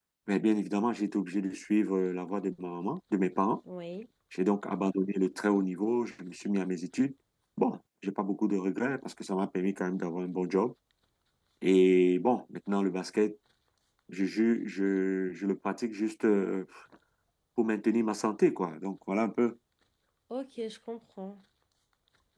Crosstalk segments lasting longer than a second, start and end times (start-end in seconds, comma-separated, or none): none